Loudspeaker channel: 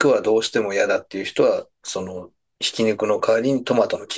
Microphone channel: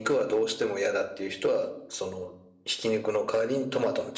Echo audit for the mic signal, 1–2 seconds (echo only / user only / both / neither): echo only